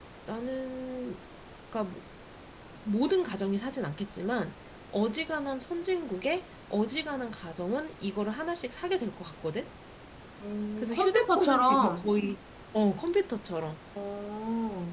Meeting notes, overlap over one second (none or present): present